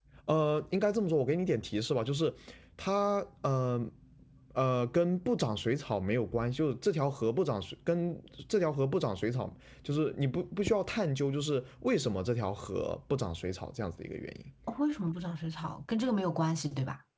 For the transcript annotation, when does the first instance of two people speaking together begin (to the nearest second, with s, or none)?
none